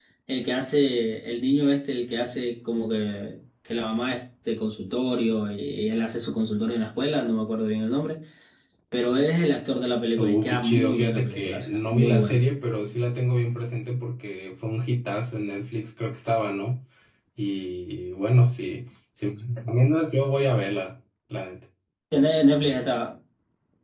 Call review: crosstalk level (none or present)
present